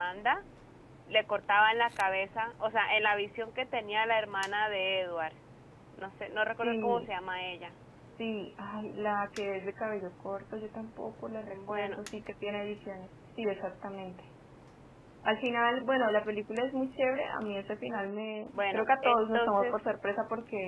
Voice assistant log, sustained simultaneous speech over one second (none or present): present